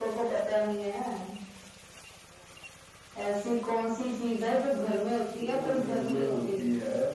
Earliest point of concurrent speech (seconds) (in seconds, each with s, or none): 5.4 s